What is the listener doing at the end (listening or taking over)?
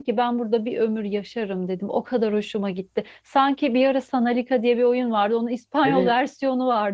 listening